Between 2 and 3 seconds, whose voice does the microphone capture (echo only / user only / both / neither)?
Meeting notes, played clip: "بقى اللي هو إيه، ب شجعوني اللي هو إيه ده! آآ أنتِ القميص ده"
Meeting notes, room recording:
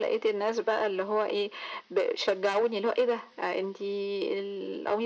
echo only